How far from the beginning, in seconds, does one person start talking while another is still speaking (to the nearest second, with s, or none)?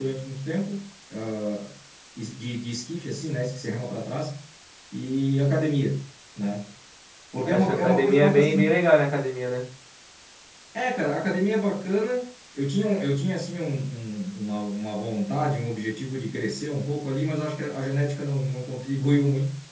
8 s